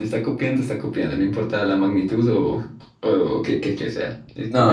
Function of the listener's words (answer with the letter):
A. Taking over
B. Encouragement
A